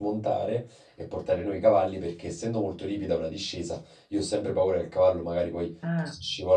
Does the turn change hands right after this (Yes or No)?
No